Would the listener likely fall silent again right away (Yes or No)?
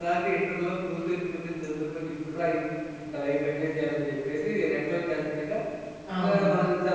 Yes